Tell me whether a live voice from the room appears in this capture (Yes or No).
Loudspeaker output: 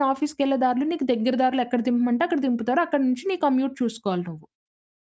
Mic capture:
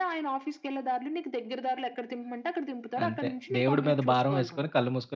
Yes